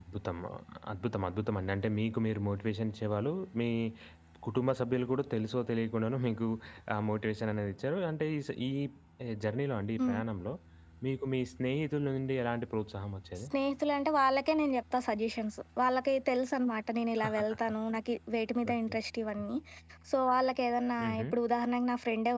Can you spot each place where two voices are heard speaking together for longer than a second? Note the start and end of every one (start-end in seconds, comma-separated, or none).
none